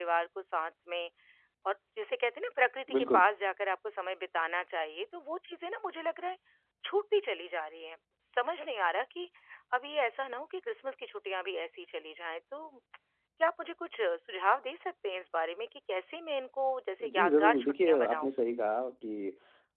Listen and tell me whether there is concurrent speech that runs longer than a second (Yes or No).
Yes